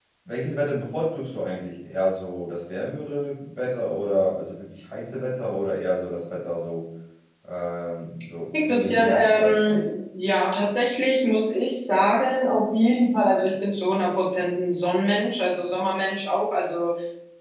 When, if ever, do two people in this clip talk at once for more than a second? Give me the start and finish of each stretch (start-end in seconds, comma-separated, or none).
8.6-9.8